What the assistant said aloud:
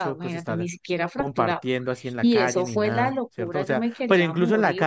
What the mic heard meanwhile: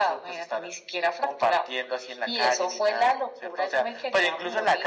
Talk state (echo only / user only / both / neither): echo only